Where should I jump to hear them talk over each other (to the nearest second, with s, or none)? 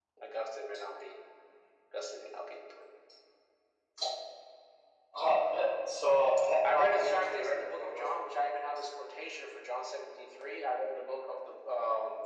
7 s